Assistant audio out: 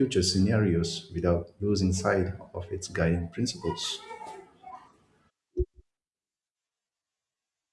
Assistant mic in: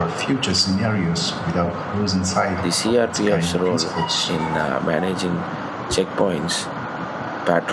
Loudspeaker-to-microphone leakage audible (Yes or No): Yes